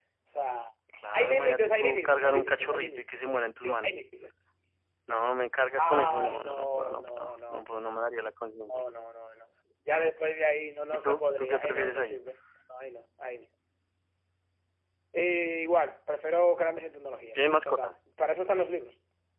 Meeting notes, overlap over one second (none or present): present